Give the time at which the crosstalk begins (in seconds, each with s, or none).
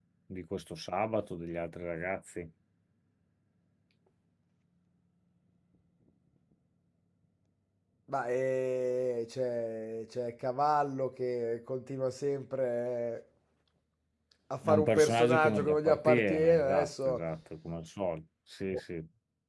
14.6 s